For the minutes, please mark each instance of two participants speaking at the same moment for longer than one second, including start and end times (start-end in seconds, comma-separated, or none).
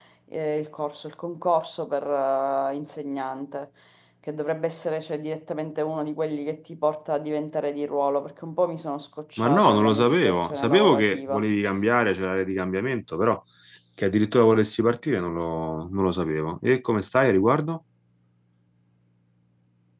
9.4-11.4